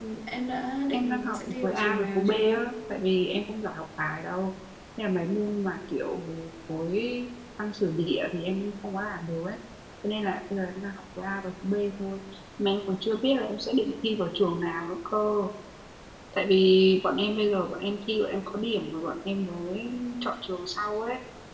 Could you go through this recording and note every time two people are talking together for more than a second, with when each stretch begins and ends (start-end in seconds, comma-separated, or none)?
0.9-2.6